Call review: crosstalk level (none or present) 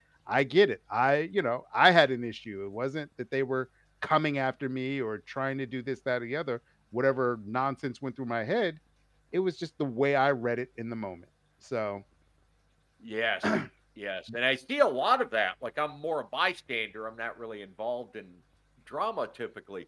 none